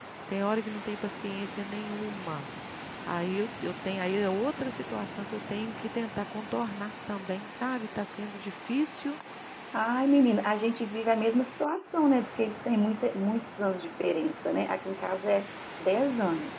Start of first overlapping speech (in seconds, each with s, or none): none